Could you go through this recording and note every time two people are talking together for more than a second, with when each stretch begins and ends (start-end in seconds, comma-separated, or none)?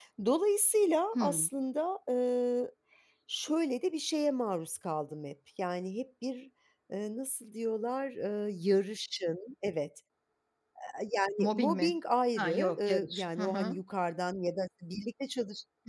12.4-13.8